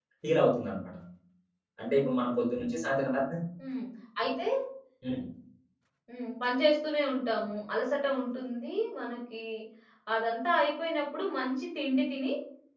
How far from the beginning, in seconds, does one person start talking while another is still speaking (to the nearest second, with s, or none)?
none